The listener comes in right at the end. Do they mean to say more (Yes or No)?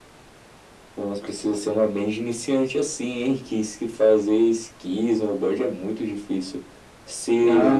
Yes